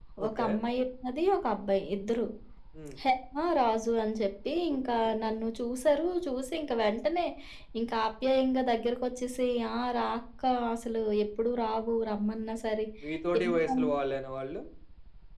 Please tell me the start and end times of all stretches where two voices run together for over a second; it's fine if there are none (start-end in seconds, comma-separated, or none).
none